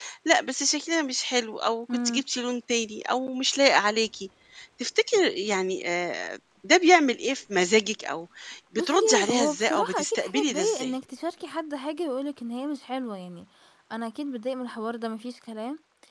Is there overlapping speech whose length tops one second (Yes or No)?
Yes